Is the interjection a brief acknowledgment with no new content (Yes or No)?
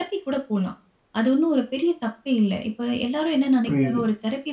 Yes